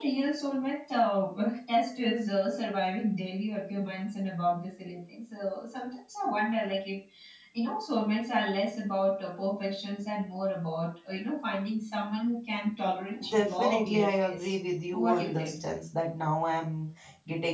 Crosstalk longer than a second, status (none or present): present